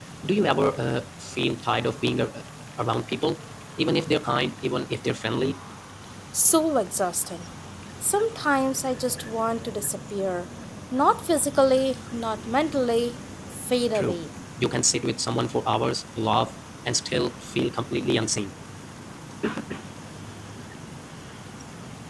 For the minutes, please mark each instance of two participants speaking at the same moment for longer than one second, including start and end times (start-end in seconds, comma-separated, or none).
none